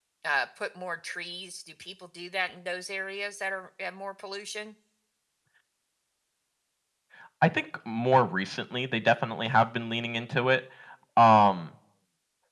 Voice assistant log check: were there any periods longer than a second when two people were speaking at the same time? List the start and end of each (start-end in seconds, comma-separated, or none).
none